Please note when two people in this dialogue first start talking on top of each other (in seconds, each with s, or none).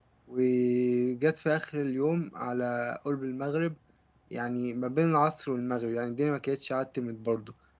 none